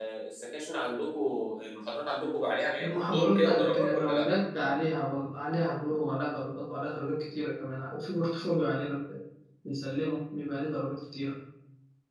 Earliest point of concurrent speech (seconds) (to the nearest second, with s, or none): 3 s